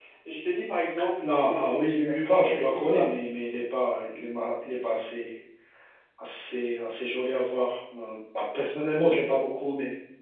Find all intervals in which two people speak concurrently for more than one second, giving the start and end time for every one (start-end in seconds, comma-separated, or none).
1.2-3.1